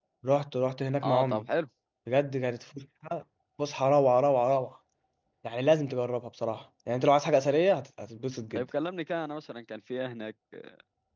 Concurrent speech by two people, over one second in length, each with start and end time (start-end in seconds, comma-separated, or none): none